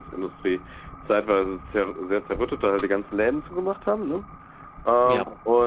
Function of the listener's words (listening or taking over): listening